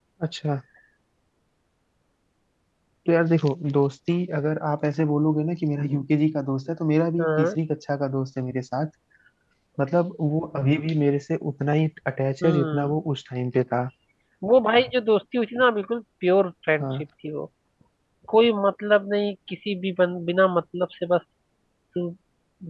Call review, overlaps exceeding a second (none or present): none